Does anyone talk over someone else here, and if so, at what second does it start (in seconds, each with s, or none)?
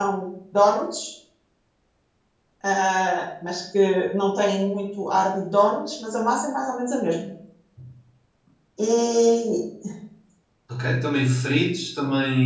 none